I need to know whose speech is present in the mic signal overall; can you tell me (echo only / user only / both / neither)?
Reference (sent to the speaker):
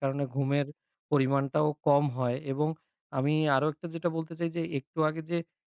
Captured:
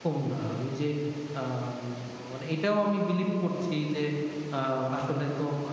user only